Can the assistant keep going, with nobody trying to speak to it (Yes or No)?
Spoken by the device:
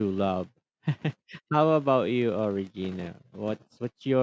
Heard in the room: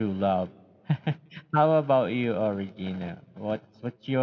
Yes